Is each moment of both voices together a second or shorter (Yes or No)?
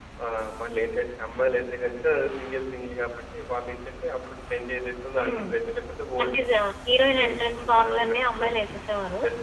No